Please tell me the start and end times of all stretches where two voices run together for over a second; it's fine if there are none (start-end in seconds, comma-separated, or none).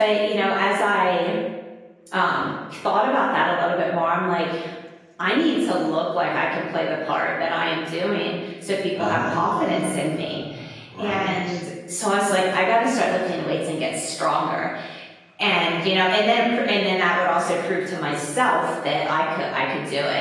9.0-10.4